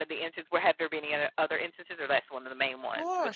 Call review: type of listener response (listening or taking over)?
taking over